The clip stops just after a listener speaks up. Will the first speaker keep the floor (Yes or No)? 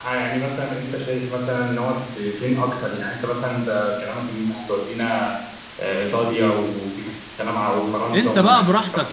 No